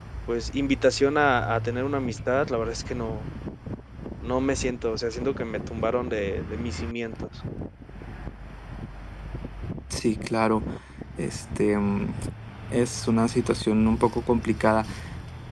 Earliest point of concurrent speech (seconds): none

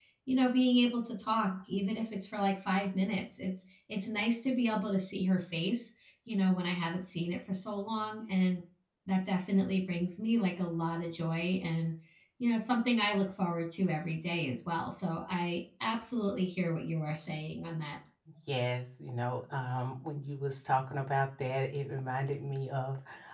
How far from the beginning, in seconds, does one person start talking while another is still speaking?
none

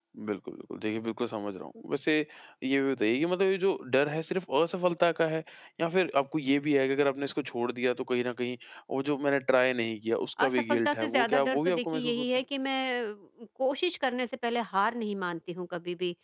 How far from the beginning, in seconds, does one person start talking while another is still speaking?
10 s

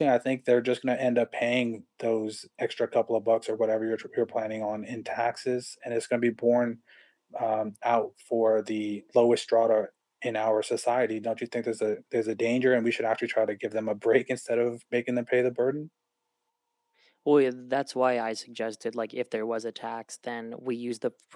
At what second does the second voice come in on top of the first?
none

